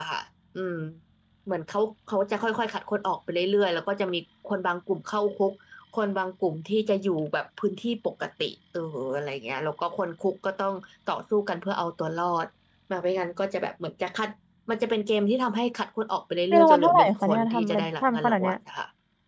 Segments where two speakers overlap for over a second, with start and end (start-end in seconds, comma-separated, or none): 16.5-18.6